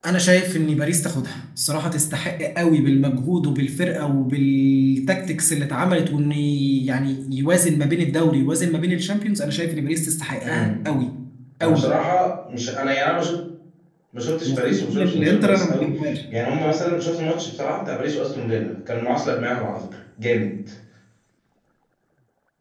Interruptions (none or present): present